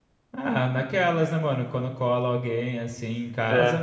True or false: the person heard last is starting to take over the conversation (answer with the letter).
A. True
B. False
B